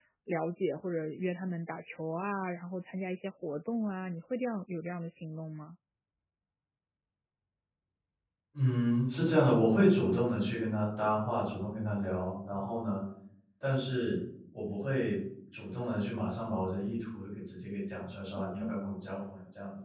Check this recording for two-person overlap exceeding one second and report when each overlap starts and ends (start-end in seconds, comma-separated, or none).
none